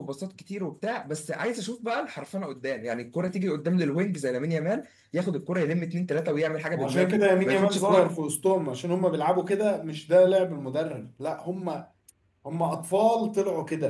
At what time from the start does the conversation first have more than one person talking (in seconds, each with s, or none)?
6.7 s